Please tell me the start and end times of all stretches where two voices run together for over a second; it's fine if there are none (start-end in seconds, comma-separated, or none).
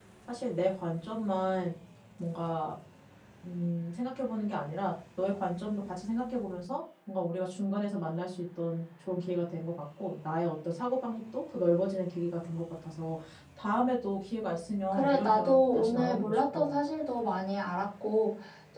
14.9-16.7